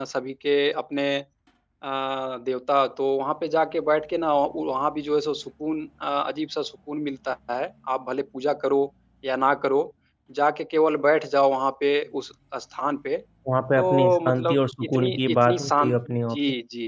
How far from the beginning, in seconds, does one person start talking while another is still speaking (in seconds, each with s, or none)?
13.8 s